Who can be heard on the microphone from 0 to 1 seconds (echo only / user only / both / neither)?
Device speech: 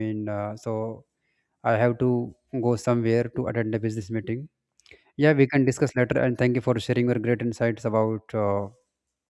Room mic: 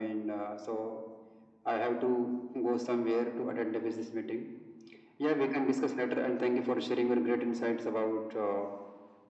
echo only